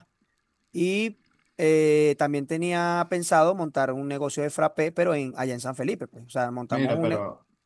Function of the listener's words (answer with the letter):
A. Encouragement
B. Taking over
B